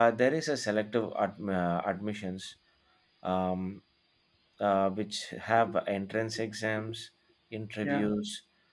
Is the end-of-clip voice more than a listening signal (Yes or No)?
No